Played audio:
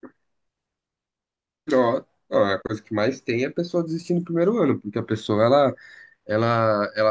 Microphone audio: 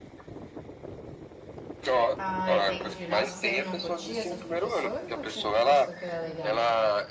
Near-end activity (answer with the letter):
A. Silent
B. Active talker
B